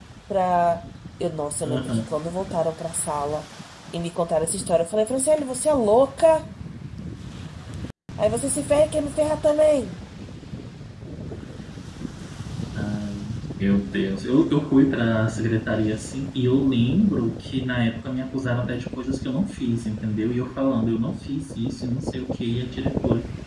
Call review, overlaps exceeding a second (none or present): none